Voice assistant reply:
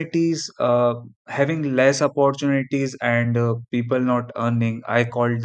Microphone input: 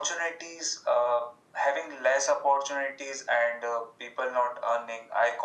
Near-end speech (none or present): none